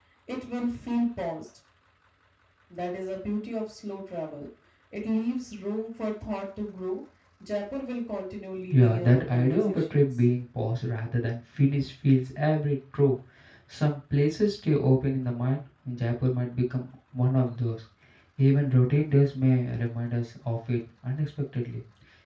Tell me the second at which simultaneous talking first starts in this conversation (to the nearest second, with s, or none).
9 s